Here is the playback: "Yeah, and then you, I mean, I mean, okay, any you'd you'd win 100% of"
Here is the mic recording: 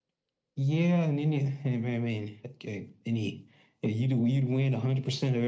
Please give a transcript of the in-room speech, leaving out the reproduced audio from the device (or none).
none